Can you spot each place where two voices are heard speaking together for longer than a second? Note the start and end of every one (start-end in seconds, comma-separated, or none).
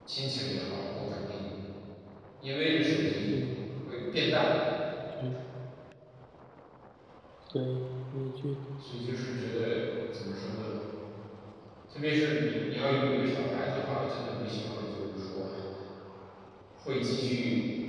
none